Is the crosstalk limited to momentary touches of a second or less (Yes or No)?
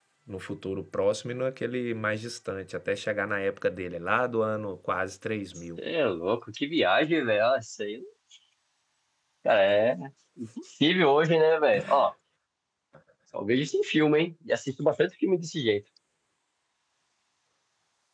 Yes